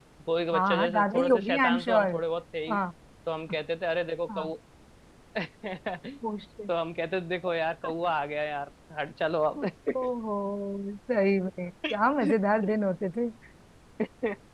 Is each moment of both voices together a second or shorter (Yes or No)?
No